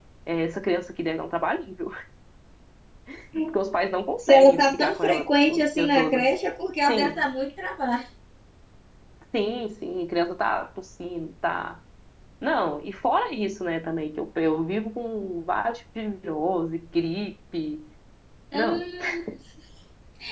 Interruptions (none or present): present